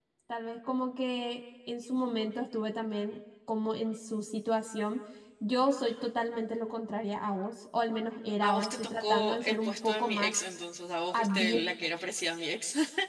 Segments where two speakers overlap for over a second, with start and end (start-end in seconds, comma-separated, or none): 8.4-10.4